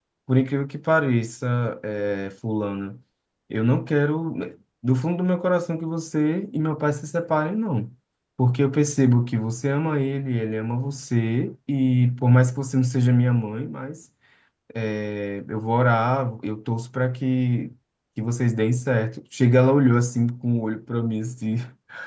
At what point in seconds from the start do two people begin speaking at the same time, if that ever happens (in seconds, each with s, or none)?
none